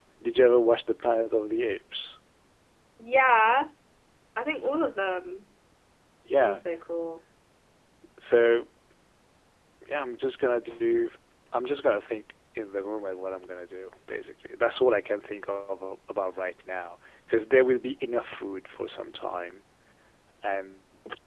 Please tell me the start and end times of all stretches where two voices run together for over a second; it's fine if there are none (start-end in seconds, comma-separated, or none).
none